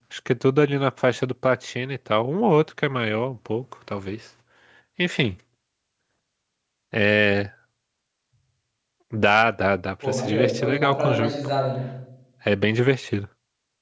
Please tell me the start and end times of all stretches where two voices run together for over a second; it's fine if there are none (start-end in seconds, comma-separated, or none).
10.0-11.3